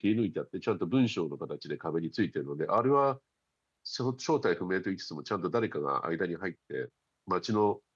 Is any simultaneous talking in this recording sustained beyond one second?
No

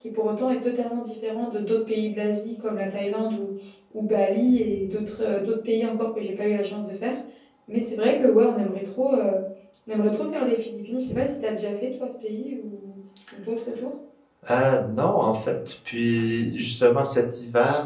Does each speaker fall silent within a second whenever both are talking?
Yes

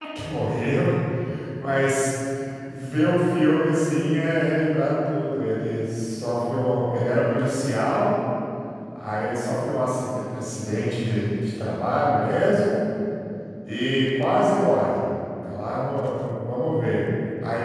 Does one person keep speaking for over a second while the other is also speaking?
No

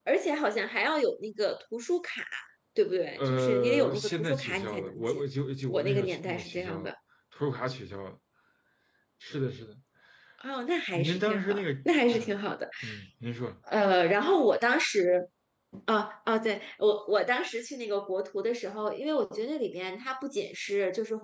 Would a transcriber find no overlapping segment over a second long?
No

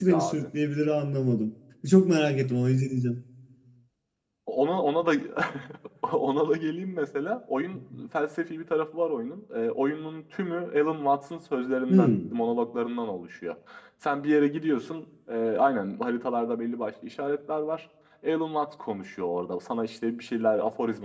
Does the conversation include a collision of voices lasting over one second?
No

